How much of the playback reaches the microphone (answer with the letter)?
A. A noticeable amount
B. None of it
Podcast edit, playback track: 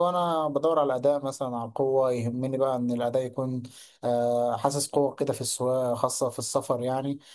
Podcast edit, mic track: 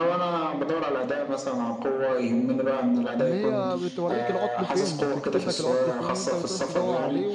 A